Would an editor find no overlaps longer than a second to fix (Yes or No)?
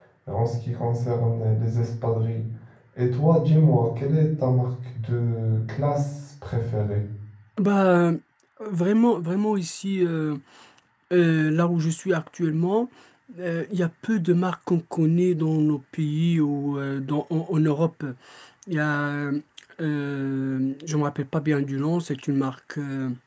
Yes